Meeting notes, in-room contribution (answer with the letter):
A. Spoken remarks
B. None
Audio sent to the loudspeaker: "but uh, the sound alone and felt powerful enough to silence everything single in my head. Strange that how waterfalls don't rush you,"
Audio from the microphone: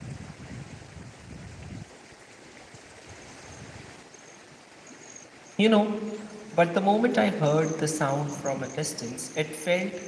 A